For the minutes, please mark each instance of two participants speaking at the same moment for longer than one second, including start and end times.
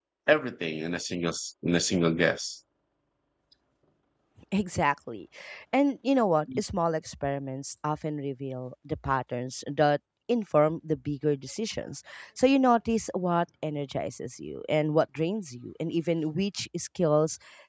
none

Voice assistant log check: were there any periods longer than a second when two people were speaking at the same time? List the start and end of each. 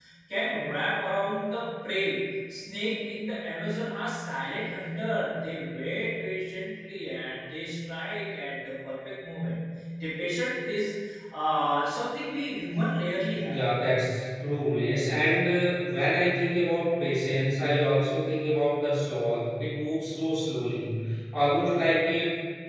none

